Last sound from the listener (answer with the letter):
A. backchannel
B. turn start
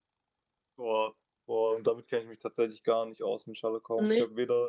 A